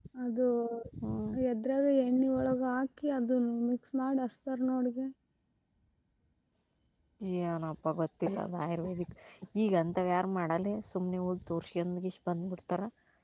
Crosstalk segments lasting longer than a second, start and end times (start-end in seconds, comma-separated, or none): none